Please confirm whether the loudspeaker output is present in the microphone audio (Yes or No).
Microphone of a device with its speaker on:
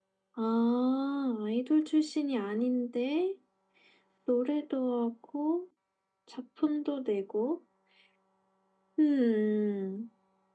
Yes